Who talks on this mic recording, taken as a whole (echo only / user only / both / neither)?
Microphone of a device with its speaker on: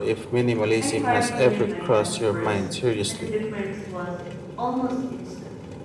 both